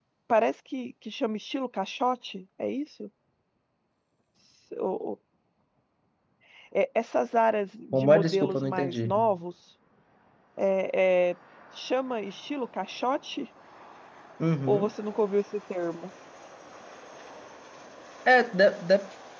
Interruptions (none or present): present